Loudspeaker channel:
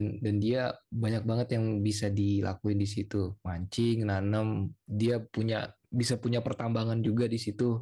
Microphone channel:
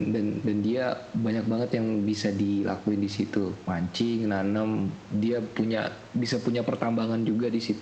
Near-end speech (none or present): none